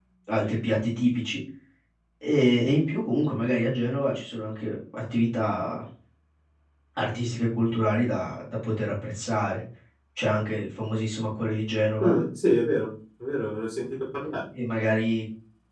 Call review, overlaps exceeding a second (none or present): none